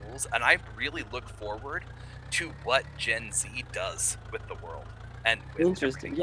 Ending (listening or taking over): taking over